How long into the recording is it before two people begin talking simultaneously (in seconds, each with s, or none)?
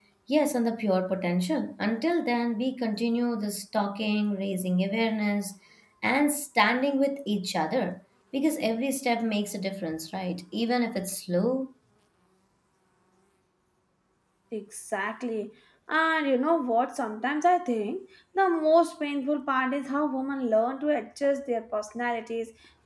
none